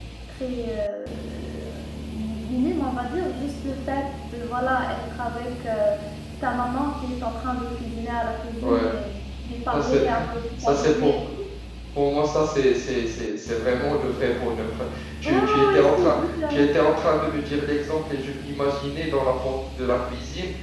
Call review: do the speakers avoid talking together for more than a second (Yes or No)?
No